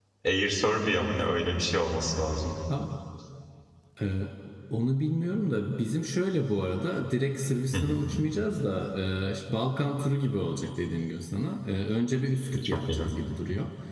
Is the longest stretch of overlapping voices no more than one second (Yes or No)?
Yes